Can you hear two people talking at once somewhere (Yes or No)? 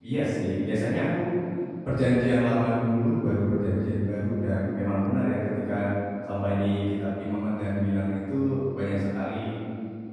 No